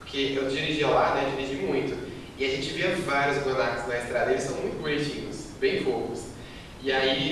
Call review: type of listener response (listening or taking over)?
listening